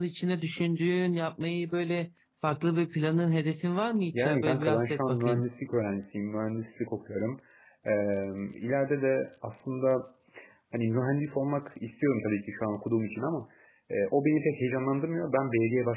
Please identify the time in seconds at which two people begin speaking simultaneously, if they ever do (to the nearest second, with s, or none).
4 s